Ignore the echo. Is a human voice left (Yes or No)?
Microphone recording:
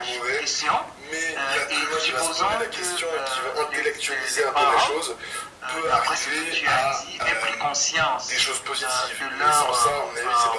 No